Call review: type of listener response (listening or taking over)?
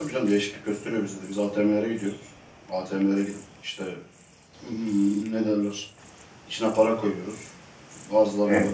listening